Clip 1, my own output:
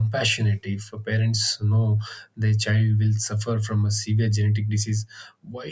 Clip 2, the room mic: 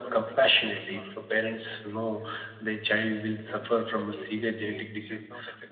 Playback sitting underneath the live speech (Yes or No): No